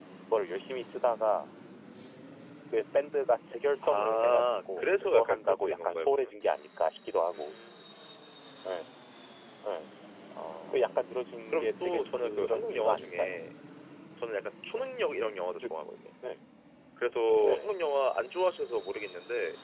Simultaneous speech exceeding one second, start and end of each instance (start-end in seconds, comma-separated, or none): 3.8-6.4, 11.5-13.5